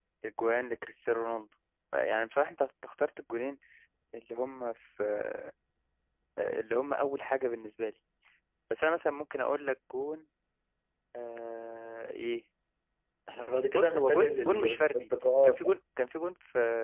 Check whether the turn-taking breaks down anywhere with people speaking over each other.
Yes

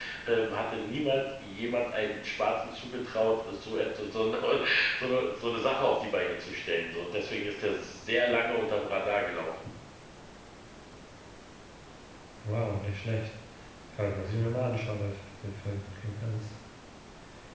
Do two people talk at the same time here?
No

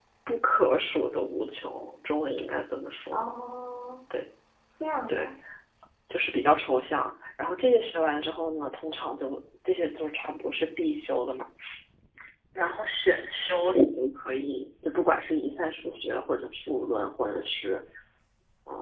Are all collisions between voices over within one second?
Yes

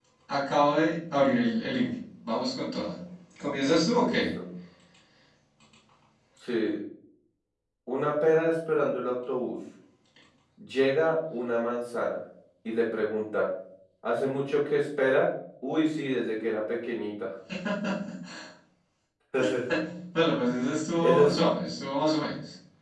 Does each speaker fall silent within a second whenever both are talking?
Yes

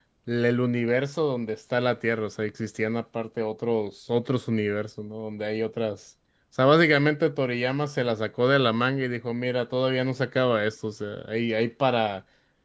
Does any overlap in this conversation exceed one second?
No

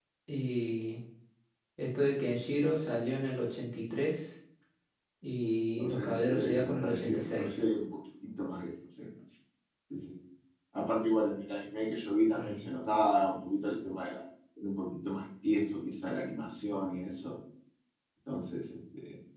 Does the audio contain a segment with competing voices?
Yes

